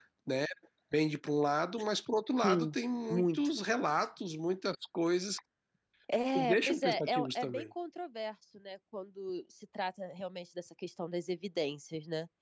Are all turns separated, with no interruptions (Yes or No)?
No